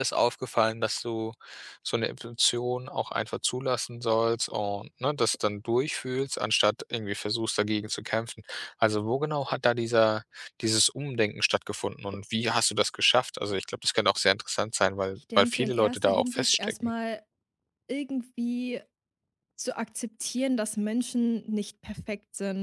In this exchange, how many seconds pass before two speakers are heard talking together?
15.4 s

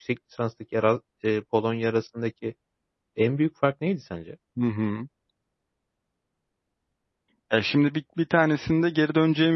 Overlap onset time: none

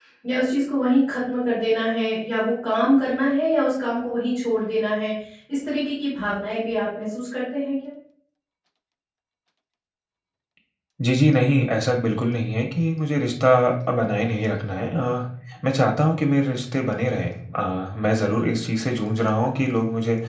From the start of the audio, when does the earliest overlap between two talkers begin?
none

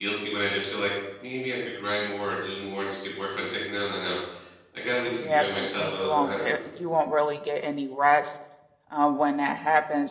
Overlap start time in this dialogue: 5.2 s

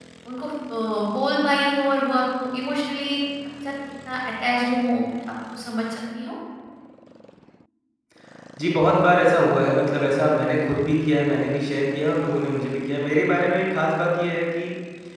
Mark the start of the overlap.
none

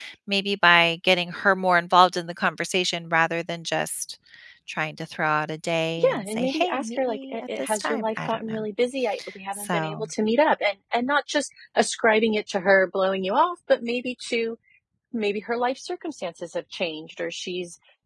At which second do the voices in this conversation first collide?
6.0 s

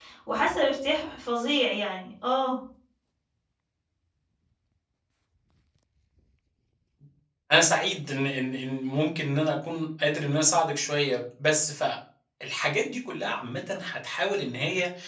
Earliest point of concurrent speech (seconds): none

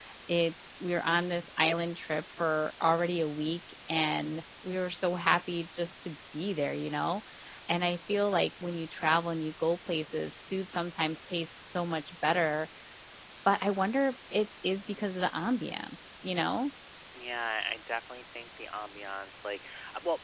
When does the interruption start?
none

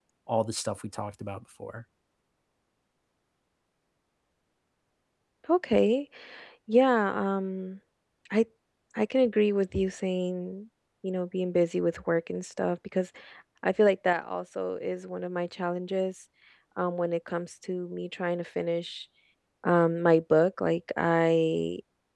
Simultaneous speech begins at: none

